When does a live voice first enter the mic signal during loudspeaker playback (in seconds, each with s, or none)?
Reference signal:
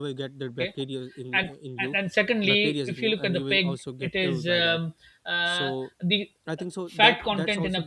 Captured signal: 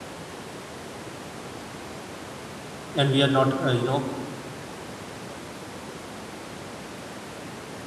2.9 s